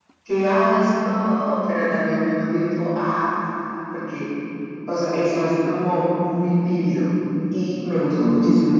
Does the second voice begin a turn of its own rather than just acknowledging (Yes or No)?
No